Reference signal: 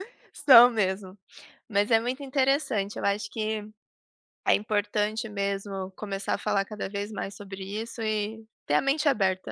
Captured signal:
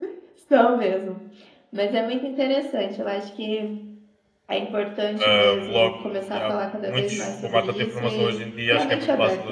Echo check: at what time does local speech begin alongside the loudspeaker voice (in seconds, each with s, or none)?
5.2 s